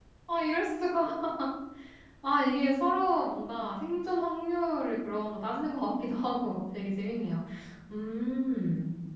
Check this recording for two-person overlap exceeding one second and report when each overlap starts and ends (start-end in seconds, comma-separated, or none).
none